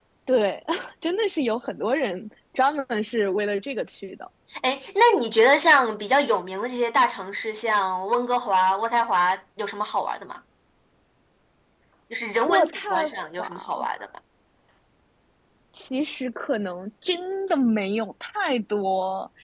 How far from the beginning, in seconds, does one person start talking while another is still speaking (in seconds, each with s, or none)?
12.5 s